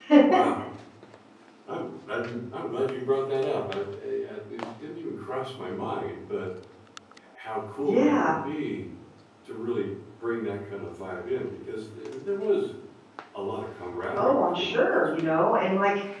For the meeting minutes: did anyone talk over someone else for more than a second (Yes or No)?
Yes